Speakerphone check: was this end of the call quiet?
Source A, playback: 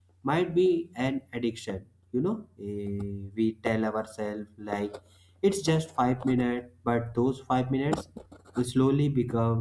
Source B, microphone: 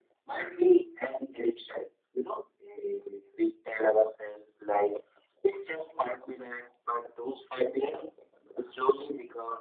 Yes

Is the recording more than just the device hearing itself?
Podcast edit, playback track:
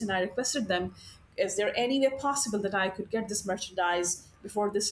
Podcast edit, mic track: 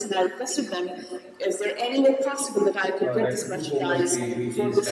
Yes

